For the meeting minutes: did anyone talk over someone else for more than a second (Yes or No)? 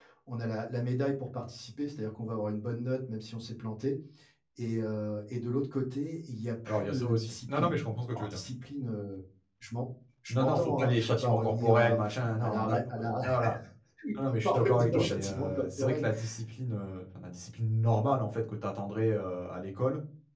Yes